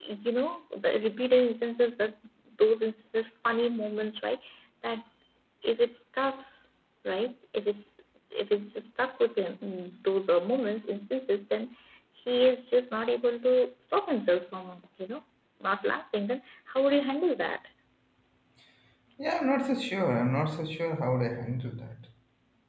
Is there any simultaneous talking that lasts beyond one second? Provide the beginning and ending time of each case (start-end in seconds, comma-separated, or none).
none